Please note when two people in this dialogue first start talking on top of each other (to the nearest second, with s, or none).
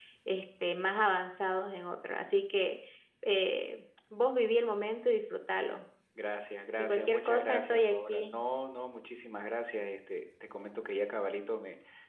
7 s